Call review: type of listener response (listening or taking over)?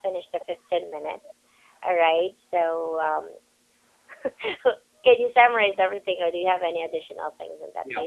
taking over